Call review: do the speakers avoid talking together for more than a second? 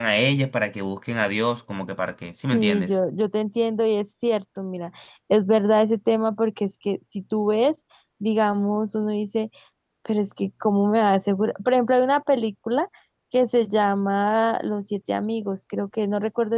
Yes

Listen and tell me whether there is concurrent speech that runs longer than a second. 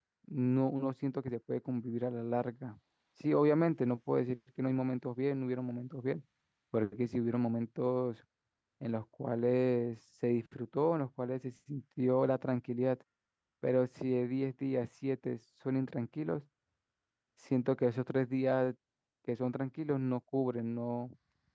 No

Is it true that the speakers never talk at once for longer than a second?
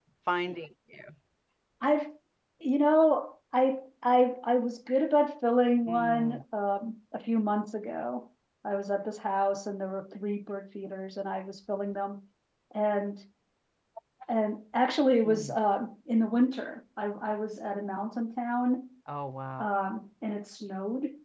Yes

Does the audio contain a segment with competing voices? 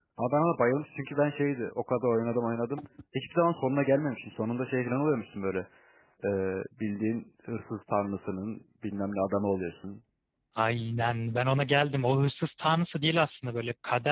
No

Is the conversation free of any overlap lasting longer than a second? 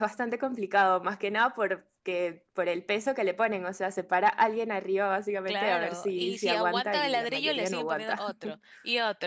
No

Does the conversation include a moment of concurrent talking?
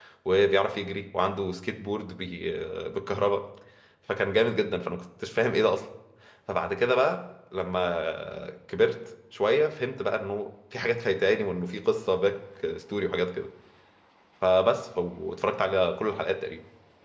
No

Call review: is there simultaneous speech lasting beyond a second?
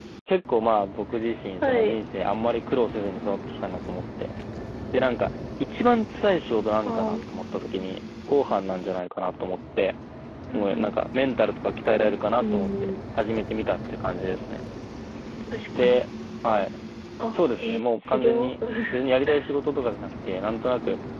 Yes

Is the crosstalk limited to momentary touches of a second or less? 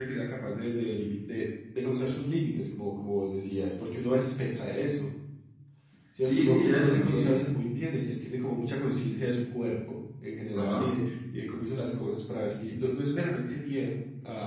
No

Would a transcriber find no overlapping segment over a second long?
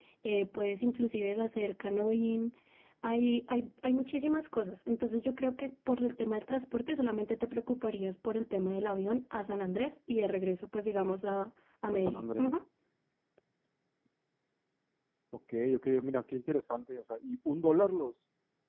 Yes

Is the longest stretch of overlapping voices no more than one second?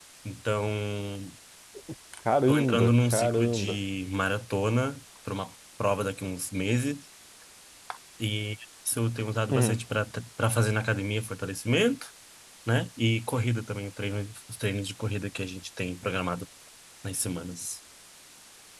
No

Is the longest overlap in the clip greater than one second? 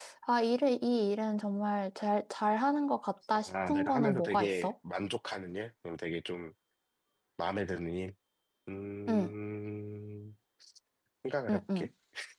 Yes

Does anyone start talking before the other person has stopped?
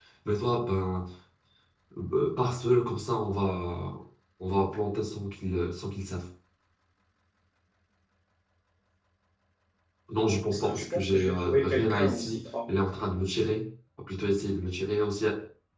Yes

